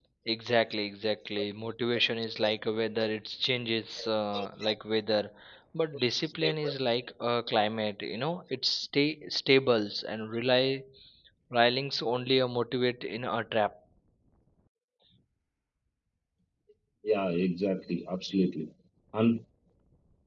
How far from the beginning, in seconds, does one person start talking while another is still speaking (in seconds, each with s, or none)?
none